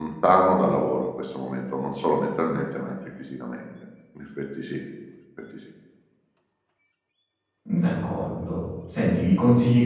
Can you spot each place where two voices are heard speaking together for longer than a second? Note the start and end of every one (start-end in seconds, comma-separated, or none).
none